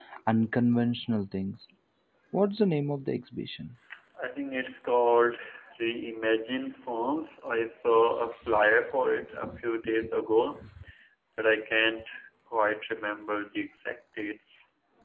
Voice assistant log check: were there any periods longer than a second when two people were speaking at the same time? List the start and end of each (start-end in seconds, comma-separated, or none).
none